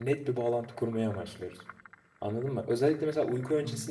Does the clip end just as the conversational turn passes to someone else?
No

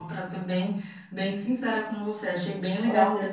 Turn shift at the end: No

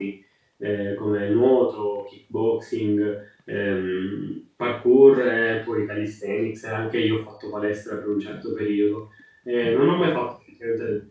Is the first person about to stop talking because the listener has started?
No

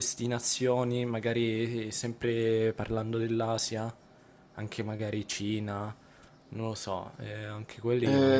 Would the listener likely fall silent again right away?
No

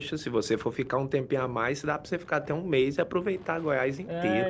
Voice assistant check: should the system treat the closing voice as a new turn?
Yes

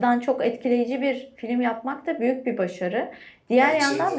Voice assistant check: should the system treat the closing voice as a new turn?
No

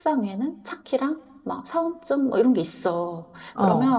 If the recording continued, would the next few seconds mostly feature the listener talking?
No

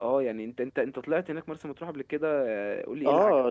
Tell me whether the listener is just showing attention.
No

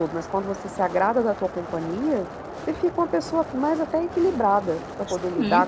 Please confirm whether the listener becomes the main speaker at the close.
Yes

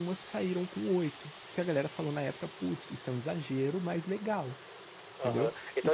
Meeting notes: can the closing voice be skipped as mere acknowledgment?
No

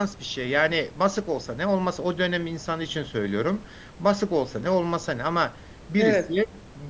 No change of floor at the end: Yes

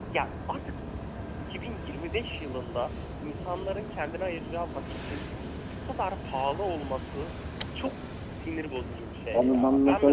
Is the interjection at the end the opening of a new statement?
Yes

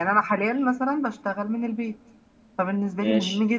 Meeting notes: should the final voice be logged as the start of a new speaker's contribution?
No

